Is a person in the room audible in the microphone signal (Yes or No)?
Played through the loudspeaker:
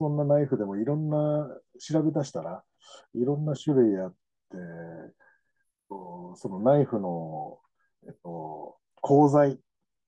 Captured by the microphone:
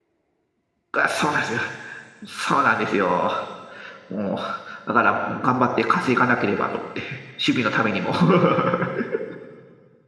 Yes